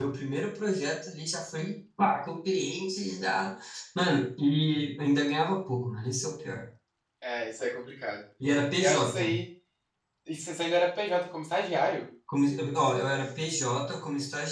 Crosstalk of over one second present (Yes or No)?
No